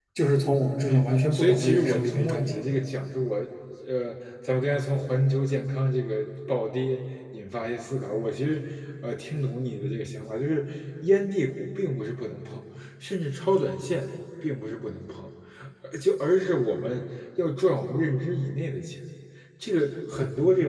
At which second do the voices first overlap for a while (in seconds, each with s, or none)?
0.9 s